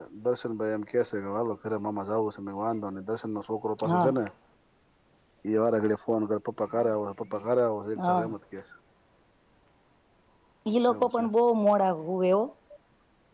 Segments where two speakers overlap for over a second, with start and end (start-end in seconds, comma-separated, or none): none